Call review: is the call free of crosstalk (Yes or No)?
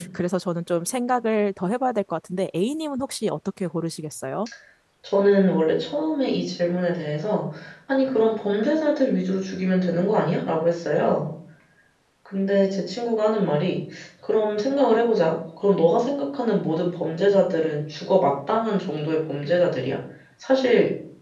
Yes